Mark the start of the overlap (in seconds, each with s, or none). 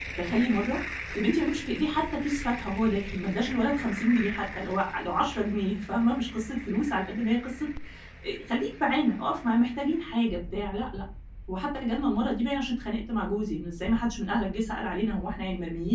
none